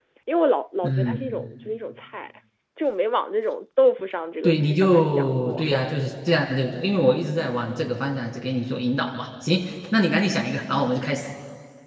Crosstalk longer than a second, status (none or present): present